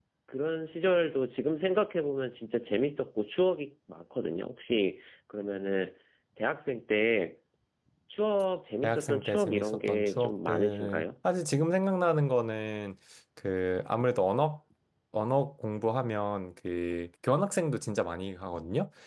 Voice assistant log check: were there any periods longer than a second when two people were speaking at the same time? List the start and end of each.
8.8-11.0

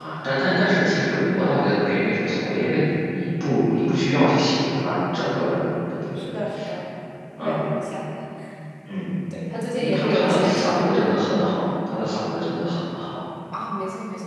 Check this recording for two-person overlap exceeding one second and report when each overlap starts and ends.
9.8-11.2

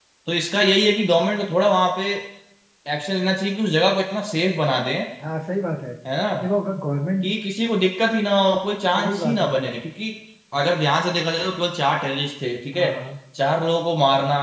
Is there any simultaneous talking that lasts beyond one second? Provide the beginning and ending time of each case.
none

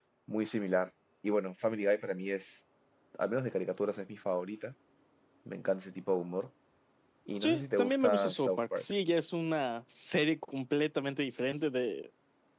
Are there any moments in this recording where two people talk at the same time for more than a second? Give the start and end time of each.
7.4-8.8

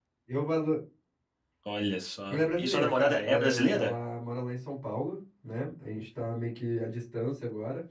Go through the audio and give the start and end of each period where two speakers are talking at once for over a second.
2.3-3.9

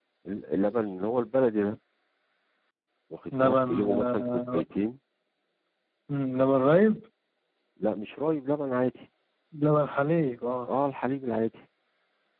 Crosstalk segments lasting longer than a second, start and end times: 3.3-4.6

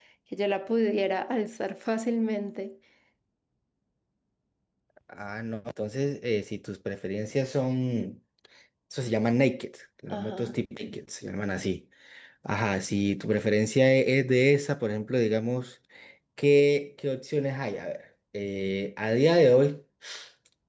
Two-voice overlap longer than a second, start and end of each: none

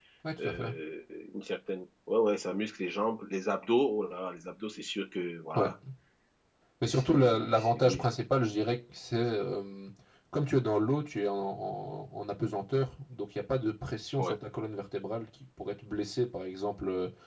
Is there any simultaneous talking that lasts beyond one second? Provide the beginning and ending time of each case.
6.8-8.2

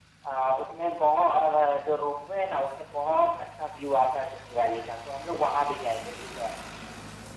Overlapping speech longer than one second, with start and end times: none

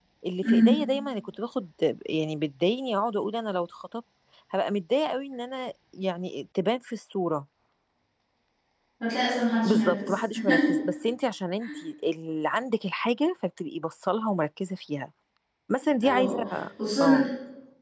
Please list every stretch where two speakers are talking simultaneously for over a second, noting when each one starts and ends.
none

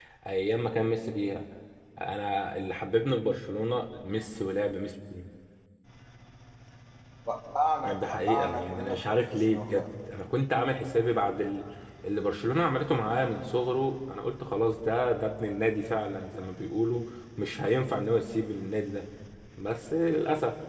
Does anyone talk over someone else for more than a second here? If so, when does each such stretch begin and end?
7.8-9.9

